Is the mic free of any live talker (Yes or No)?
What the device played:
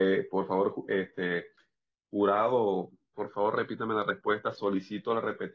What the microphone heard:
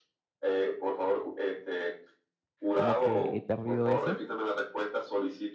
No